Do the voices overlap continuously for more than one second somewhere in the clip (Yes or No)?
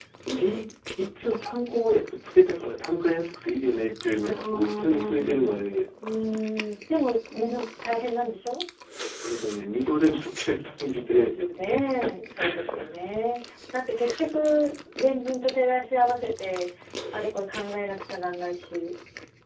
Yes